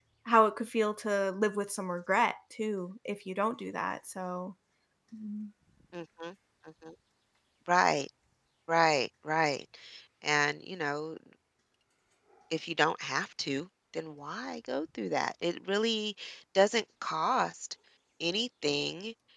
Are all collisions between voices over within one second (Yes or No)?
Yes